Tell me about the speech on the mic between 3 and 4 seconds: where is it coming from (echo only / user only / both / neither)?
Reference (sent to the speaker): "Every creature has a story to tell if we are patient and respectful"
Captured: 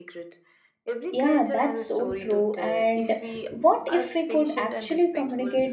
both